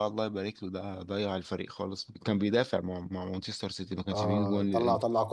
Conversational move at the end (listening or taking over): taking over